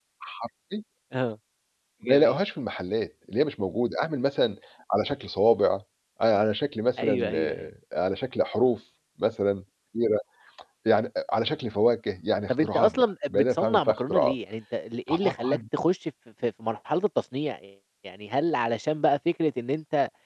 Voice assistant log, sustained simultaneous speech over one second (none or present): present